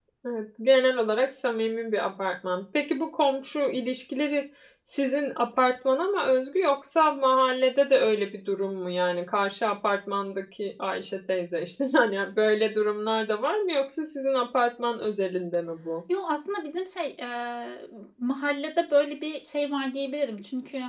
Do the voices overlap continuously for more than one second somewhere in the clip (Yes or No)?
No